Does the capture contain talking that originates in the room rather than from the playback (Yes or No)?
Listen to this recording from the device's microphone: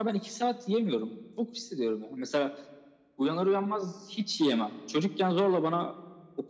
No